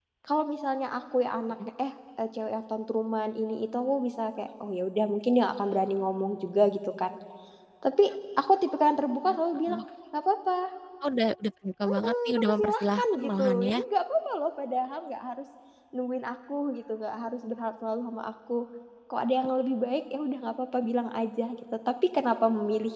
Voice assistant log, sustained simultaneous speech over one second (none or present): present